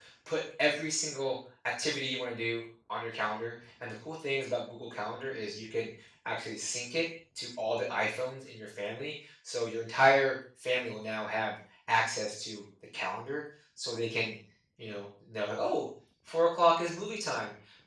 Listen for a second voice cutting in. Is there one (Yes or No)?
No